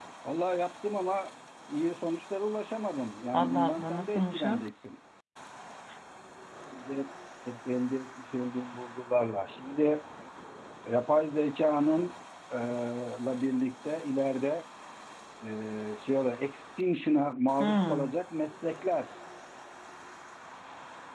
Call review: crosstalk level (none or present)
present